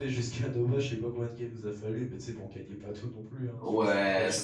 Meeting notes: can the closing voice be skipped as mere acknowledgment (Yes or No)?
No